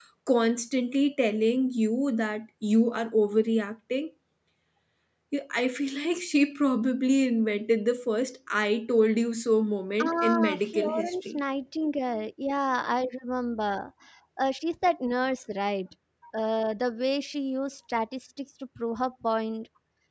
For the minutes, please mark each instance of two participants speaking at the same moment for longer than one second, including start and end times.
10.0-11.4

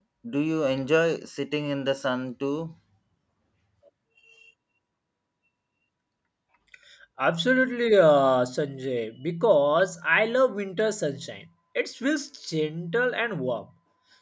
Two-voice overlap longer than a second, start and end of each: none

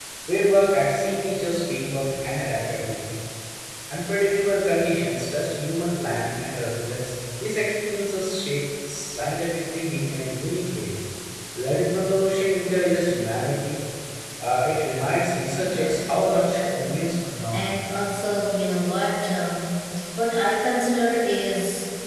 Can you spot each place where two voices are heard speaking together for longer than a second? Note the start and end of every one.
15.6-16.9

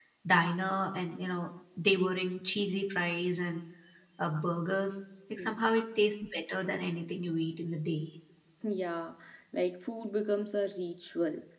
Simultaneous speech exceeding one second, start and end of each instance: none

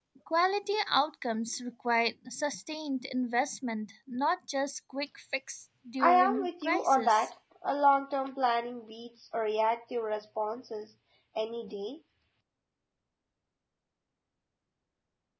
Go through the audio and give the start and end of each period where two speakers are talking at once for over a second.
6.0-7.3

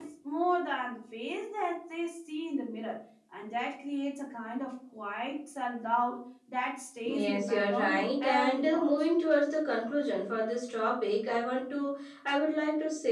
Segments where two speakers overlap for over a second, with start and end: 7.2-8.9

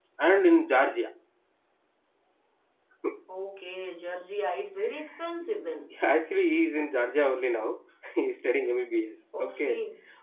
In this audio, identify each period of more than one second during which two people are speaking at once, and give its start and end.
none

